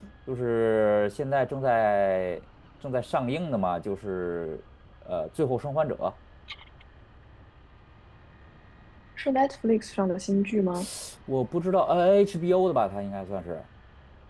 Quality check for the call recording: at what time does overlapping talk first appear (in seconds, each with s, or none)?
none